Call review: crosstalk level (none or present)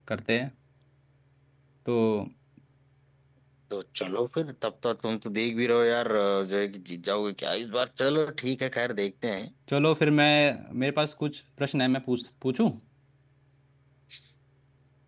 none